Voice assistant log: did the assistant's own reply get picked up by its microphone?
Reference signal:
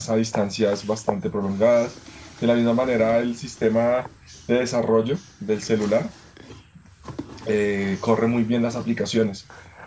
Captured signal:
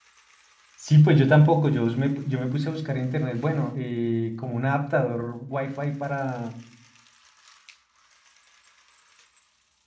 No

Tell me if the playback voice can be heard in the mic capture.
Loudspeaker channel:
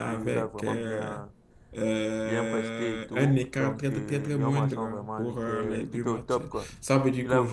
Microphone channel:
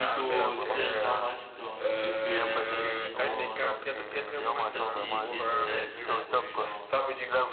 Yes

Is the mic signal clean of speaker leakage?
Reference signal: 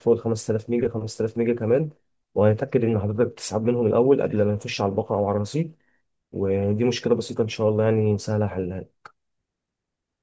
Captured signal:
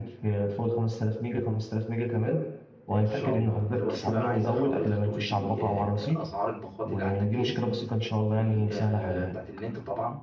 No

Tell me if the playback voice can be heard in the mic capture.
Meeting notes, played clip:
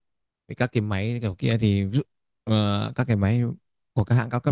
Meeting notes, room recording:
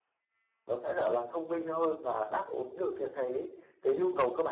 No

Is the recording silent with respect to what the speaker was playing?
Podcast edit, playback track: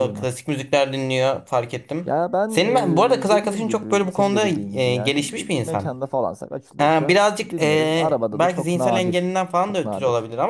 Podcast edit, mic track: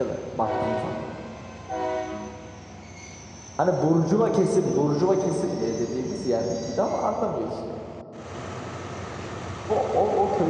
Yes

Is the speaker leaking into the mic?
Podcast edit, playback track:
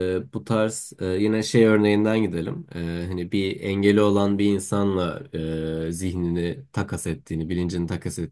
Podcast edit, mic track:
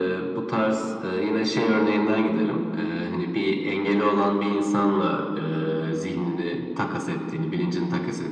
Yes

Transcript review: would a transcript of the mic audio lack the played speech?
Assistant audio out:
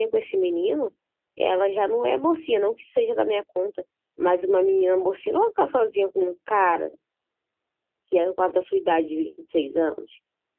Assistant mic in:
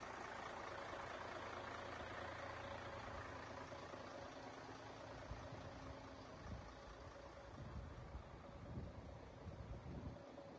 Yes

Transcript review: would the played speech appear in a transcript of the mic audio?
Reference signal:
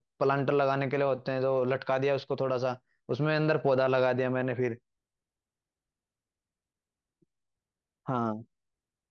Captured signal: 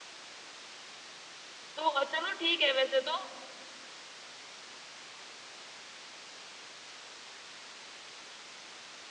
No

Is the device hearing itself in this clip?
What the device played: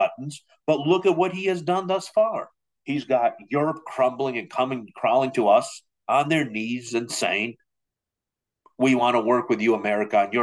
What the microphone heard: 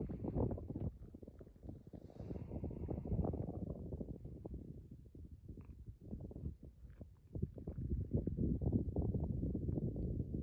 No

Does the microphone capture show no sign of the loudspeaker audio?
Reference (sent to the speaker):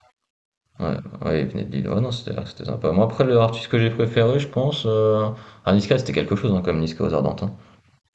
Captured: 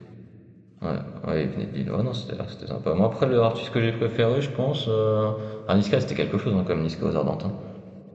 No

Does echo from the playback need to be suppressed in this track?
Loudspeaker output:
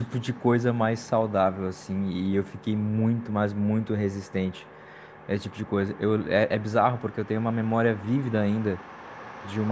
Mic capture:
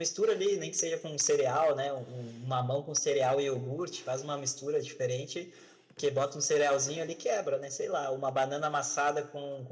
No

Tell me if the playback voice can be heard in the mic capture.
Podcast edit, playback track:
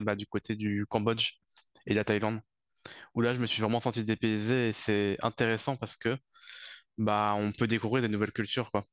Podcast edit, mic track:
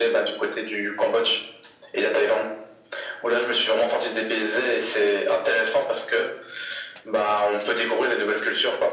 Yes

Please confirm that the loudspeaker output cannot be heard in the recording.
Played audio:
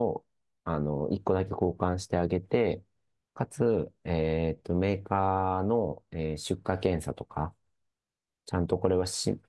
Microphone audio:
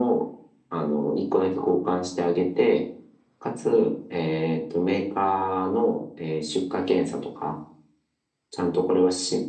No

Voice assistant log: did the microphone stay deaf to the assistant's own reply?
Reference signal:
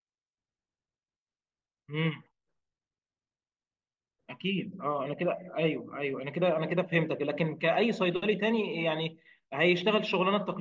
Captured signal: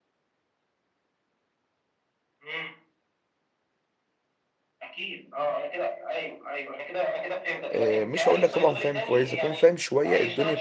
No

